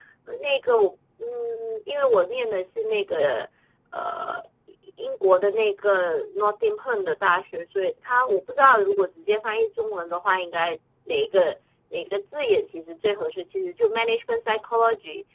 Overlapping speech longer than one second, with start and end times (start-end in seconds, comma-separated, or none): none